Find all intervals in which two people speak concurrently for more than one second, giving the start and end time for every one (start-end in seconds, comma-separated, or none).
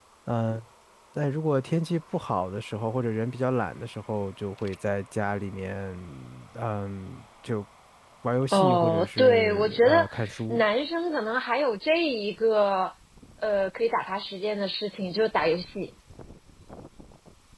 8.5-10.1